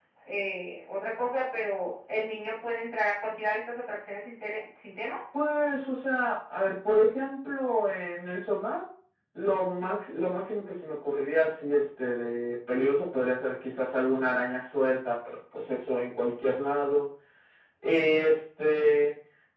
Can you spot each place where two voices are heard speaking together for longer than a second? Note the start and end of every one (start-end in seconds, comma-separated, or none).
none